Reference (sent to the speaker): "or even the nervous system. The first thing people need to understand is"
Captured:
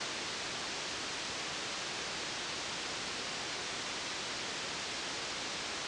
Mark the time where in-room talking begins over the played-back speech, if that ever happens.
none

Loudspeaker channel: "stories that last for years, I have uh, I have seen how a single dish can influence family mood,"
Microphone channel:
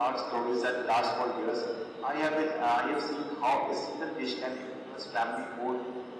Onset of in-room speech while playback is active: none

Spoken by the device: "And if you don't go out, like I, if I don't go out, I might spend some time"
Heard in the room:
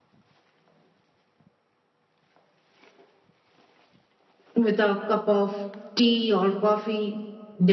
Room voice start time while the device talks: 4.5 s

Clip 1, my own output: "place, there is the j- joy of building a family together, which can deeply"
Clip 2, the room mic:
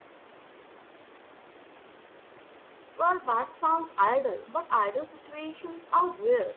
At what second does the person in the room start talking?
3.0 s

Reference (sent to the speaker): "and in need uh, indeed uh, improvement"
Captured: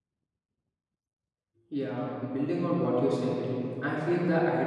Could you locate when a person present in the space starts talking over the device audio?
1.7 s

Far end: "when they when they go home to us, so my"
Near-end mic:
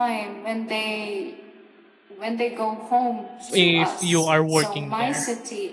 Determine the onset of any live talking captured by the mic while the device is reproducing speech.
3.4 s

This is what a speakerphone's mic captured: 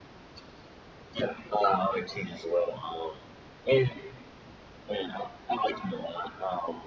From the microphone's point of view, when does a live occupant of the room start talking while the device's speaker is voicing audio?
none

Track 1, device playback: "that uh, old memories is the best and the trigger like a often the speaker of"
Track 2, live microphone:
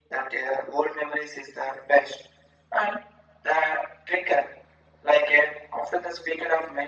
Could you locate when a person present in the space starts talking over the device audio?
none

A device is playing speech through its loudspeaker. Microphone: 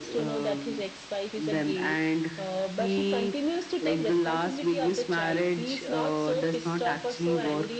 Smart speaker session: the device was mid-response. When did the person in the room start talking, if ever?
none

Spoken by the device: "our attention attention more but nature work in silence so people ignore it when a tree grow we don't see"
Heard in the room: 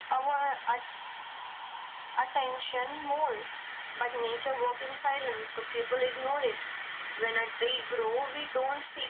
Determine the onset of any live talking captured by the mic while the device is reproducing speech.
none

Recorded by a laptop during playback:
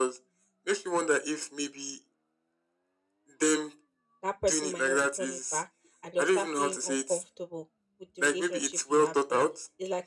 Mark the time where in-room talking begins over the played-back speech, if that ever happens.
4.2 s

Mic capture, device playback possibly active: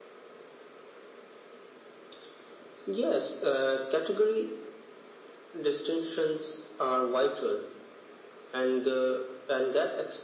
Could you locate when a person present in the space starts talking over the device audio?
none

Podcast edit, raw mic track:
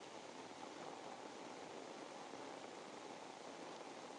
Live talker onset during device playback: none

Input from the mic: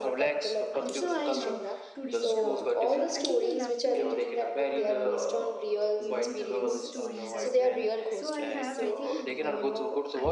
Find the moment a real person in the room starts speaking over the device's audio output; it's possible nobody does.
0.7 s

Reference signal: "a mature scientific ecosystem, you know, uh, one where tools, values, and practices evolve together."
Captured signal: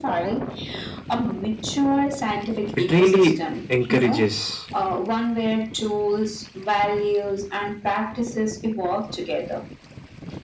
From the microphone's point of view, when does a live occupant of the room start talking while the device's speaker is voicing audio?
2.8 s

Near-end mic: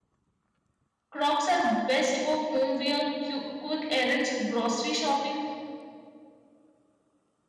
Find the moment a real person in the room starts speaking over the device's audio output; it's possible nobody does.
1.1 s

